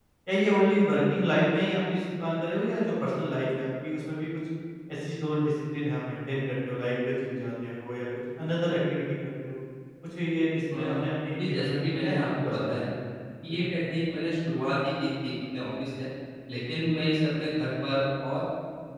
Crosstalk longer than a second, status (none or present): present